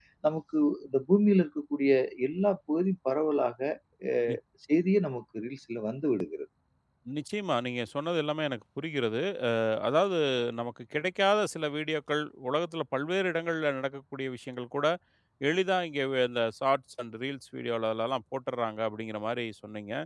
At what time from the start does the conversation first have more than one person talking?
none

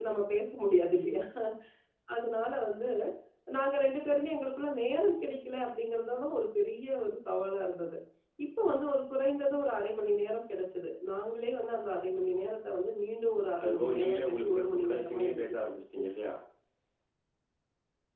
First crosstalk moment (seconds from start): 13.6 s

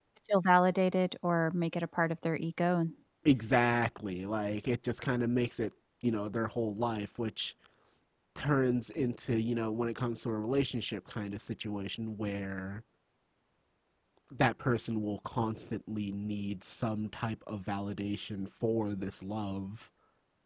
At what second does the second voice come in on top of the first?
none

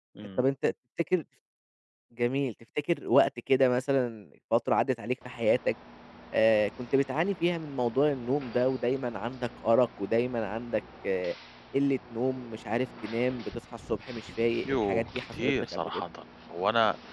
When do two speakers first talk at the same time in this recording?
14.7 s

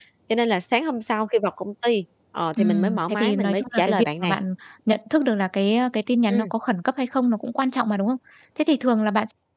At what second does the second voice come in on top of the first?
2.6 s

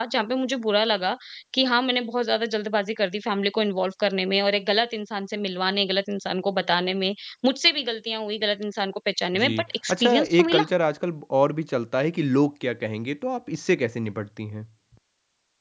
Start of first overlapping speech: 9.3 s

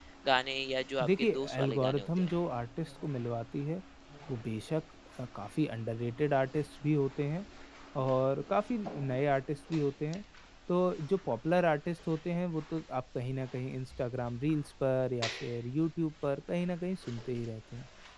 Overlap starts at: 1.0 s

